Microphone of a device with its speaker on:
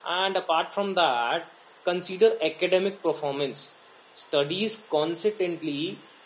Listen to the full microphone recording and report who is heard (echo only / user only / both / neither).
user only